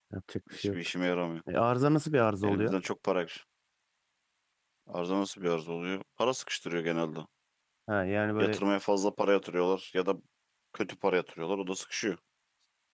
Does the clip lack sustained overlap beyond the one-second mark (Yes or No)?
Yes